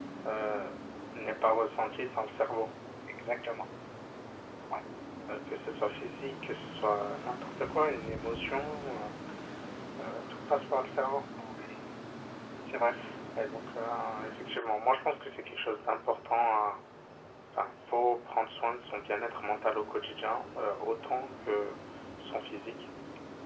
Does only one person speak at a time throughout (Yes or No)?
Yes